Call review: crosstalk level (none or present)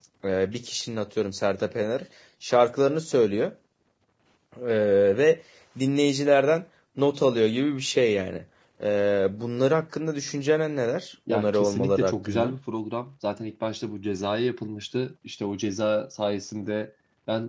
present